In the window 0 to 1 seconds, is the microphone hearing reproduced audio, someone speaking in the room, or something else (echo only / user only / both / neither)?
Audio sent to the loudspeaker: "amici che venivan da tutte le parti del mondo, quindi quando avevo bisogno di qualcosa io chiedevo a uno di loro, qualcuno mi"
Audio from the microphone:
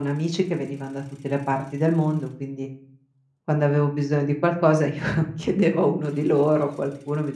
echo only